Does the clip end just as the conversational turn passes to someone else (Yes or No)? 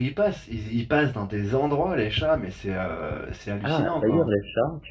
Yes